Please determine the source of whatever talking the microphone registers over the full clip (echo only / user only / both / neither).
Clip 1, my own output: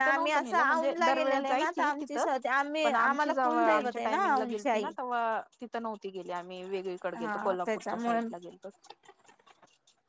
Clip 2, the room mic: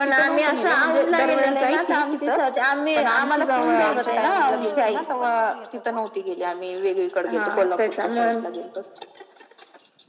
both